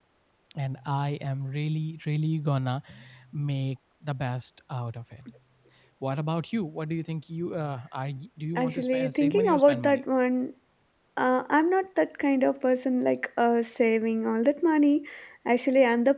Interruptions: present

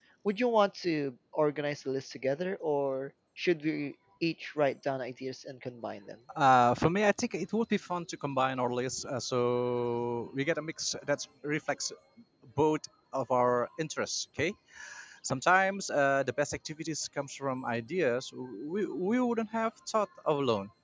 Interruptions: none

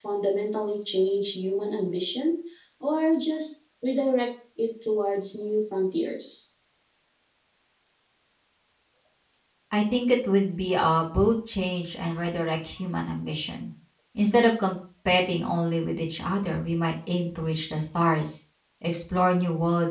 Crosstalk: none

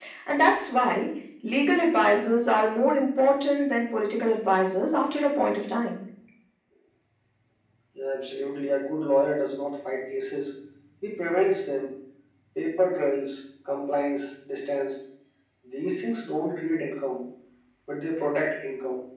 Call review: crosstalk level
none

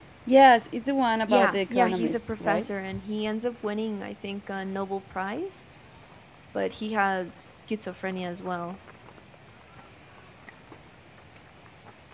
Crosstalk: present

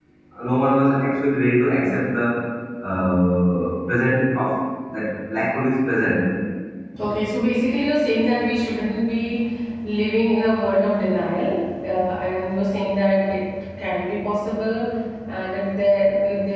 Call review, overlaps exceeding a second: none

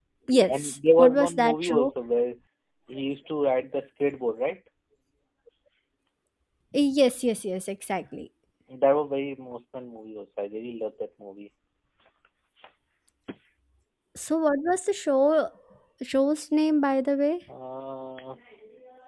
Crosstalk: present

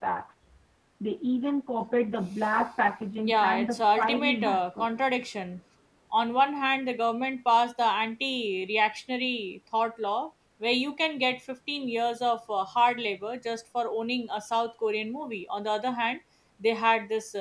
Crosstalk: present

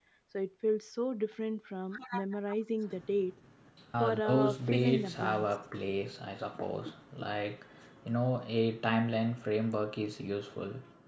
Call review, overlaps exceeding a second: present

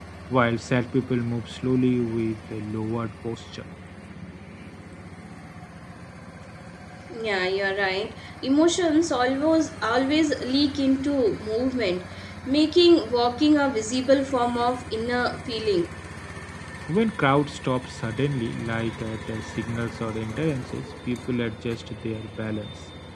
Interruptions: none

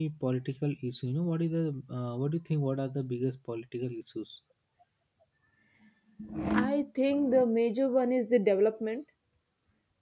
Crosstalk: none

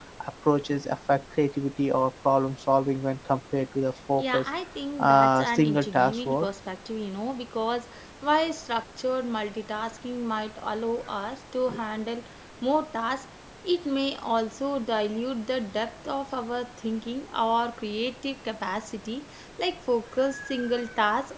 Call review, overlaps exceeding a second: present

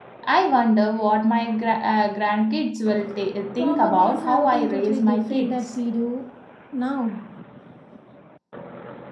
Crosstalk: present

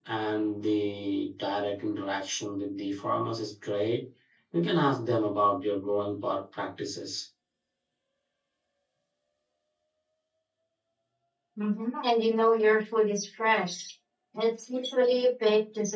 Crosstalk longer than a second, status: none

